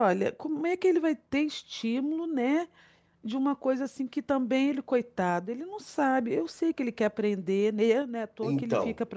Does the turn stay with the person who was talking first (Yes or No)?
No